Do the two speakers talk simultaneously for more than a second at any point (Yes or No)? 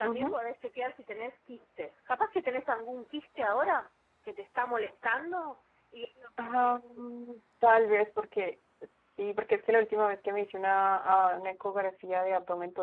No